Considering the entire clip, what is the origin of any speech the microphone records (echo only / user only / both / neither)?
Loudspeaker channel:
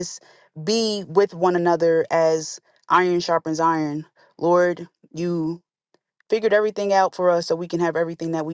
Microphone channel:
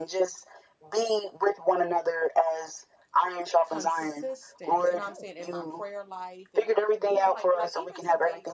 both